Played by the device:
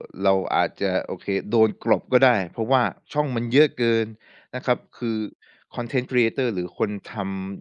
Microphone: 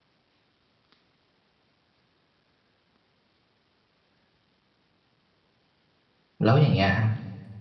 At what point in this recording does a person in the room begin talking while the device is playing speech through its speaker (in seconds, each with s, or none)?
6.4 s